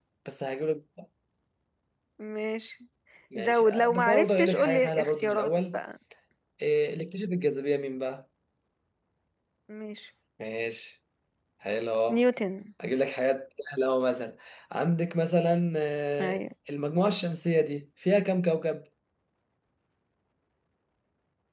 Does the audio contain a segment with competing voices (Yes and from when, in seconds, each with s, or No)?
Yes, from 3.4 s